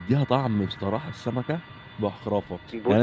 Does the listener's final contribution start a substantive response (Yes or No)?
No